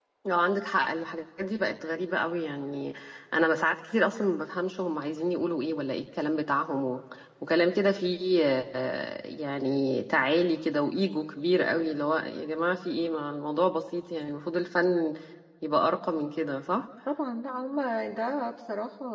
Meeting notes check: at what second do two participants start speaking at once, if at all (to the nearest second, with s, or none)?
none